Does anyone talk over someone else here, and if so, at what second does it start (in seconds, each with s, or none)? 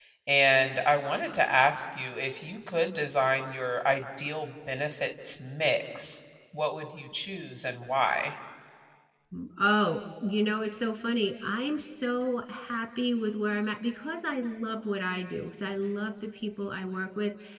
none